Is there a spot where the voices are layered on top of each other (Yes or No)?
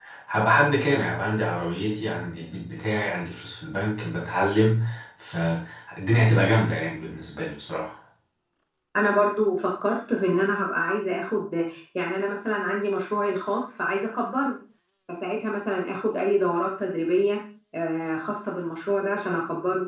No